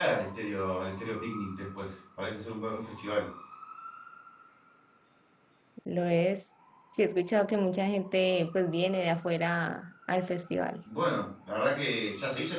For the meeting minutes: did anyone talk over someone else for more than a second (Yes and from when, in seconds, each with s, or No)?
No